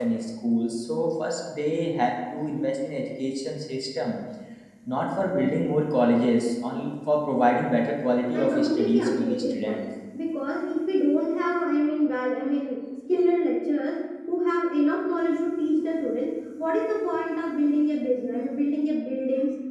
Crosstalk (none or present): present